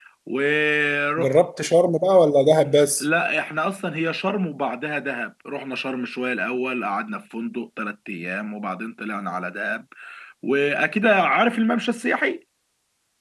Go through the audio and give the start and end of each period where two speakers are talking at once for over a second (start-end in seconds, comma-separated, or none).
none